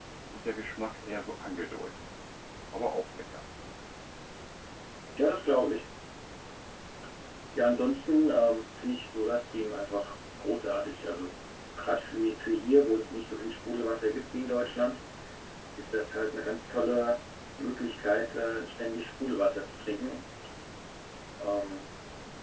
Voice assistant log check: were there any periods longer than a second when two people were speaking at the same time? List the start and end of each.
none

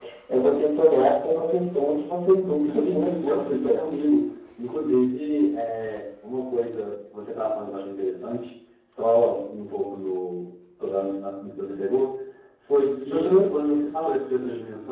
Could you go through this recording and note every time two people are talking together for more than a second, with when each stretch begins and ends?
2.5-3.9

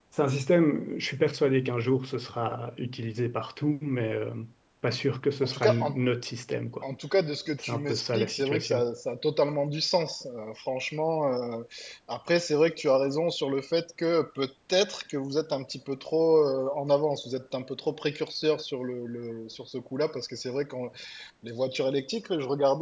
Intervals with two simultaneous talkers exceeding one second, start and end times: 7.6-8.9

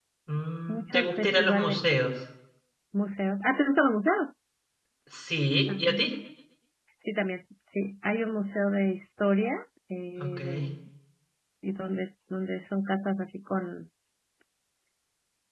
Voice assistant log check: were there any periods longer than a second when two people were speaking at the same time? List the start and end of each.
0.7-2.0

